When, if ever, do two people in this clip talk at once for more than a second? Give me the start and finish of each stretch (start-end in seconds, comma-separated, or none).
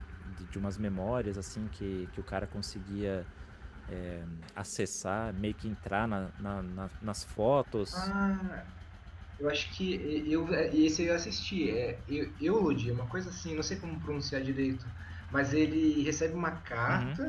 none